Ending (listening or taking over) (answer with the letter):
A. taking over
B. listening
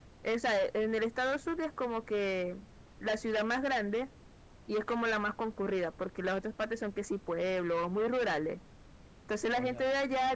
B